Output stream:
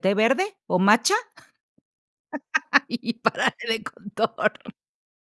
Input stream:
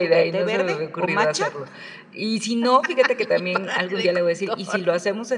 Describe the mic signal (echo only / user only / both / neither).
both